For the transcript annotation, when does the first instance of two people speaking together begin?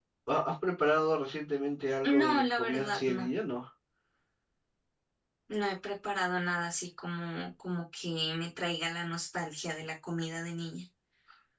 2.0 s

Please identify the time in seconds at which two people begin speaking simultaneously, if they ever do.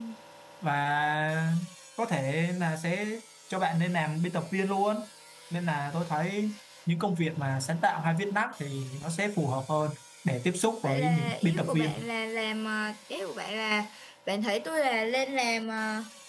10.8 s

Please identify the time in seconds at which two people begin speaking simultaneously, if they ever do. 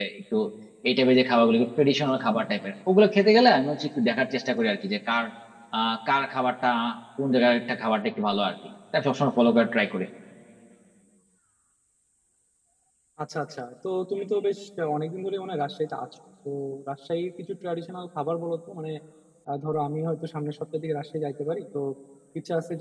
none

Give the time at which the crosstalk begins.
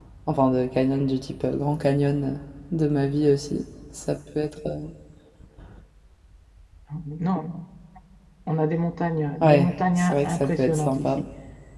9.4 s

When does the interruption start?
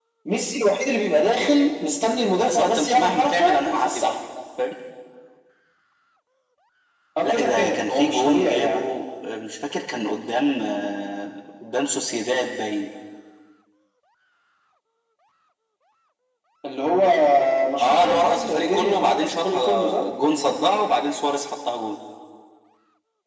2.4 s

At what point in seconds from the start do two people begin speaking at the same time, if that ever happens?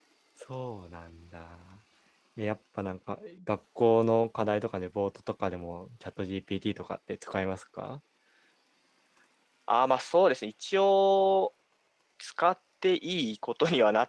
none

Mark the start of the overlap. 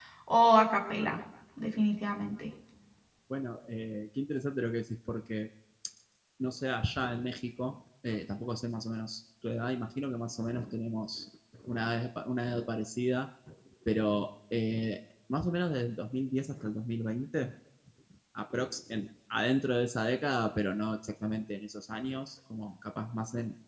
none

